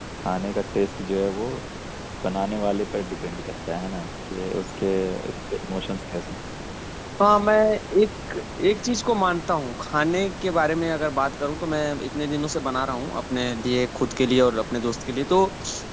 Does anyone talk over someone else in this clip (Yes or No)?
No